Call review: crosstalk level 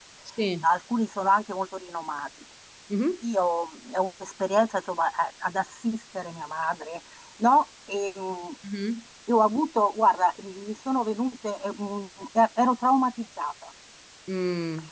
none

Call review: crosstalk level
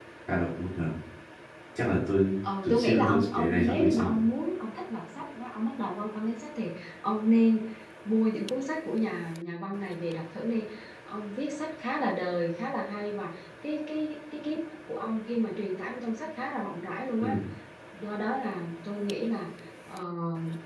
present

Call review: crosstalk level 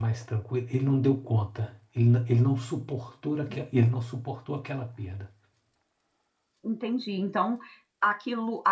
none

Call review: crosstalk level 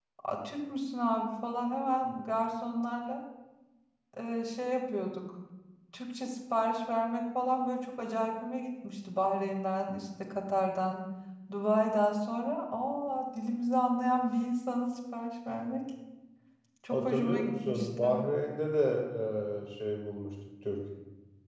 present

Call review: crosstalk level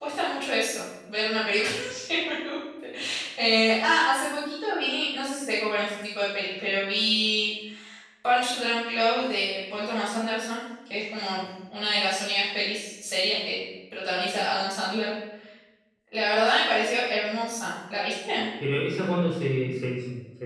none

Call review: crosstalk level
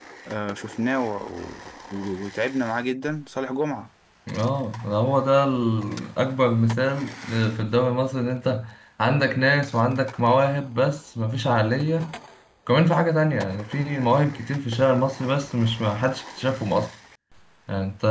none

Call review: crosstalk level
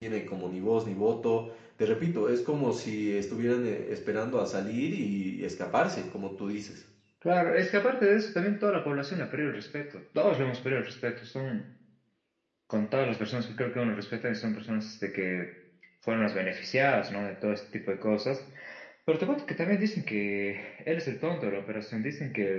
none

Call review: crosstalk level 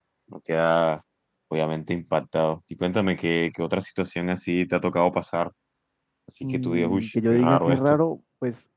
present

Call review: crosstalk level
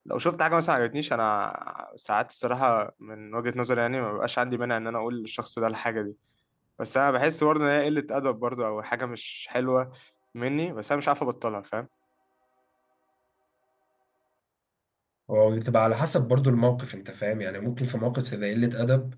none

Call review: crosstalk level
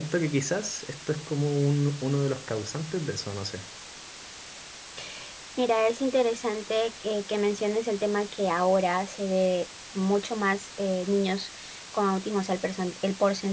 none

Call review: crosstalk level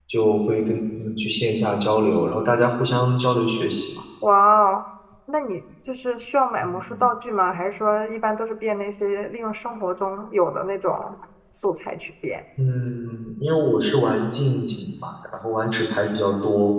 none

